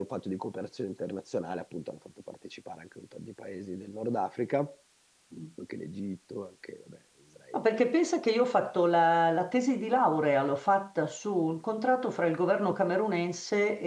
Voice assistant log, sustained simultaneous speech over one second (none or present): none